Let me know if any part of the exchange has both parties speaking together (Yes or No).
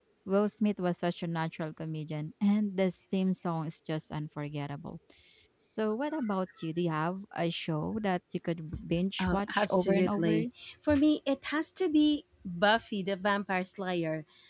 Yes